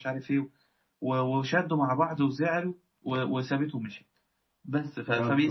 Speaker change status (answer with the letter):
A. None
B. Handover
A